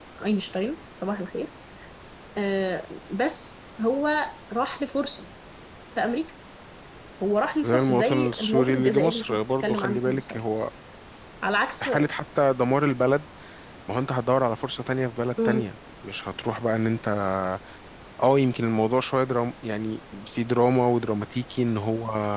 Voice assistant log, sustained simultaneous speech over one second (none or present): present